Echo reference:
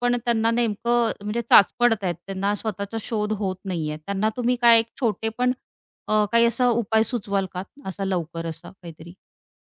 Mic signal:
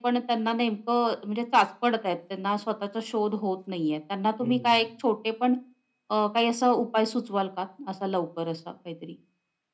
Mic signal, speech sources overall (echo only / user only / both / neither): both